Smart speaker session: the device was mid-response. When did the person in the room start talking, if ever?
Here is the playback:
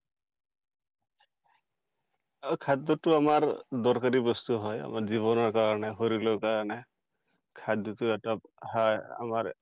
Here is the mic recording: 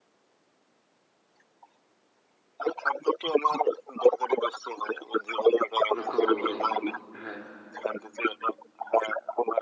6.0 s

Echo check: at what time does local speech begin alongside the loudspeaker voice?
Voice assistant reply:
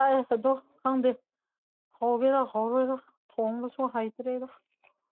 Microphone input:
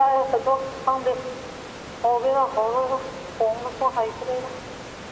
none

